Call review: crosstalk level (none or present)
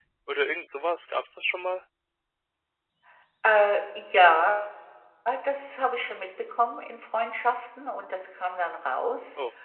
none